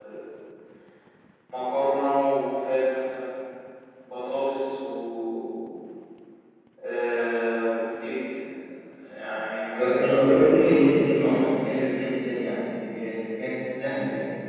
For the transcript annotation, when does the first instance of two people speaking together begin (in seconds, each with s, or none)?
9.8 s